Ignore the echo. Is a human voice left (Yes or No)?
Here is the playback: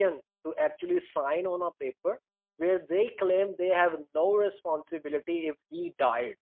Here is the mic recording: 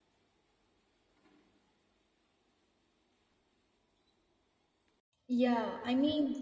Yes